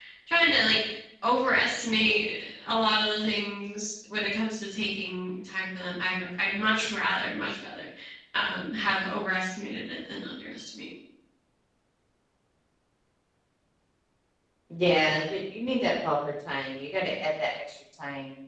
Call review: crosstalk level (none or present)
none